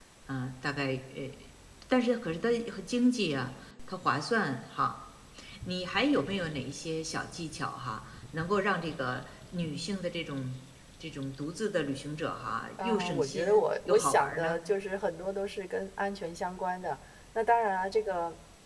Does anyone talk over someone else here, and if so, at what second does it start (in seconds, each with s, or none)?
12.8 s